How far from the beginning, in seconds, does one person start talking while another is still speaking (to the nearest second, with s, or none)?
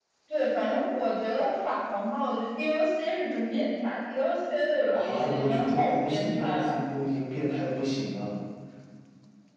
5 s